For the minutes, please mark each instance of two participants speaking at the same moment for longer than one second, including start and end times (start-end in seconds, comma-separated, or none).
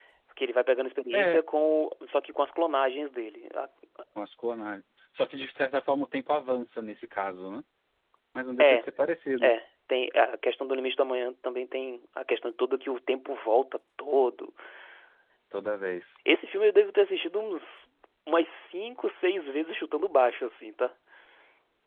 none